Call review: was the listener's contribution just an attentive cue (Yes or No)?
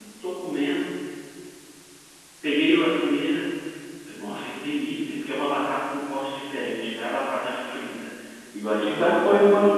No